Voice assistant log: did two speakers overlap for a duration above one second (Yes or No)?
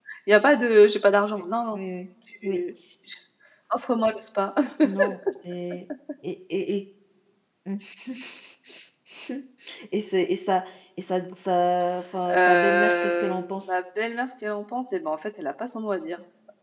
Yes